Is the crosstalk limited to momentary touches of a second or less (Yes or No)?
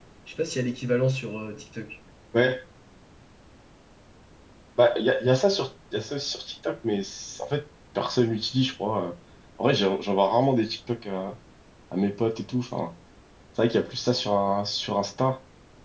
Yes